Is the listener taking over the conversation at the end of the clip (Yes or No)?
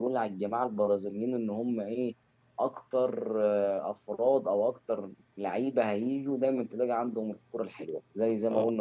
No